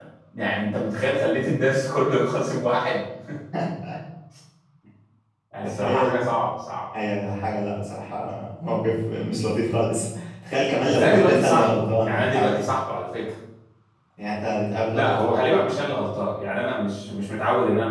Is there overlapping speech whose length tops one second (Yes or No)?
Yes